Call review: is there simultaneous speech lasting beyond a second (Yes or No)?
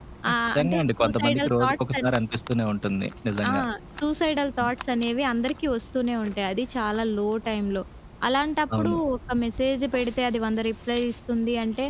Yes